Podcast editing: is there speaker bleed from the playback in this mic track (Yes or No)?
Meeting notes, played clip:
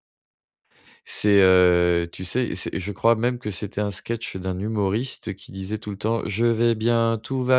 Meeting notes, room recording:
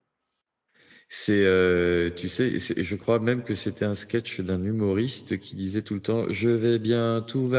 Yes